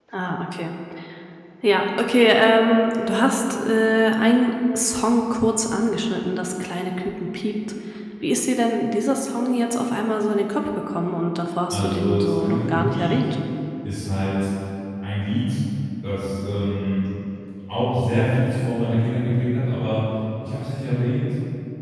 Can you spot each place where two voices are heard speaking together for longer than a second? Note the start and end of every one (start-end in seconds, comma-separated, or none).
11.7-13.2